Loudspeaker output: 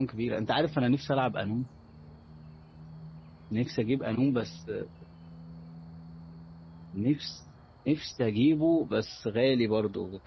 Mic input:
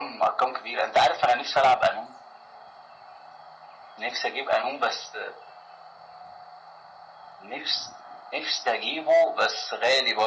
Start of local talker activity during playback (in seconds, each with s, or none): none